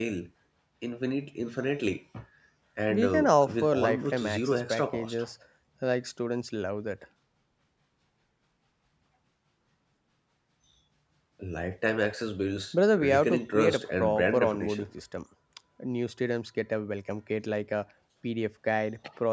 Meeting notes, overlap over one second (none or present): present